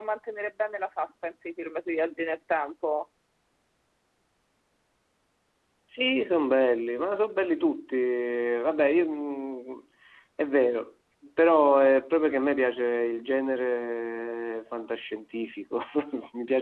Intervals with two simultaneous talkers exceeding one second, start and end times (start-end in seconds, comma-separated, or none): none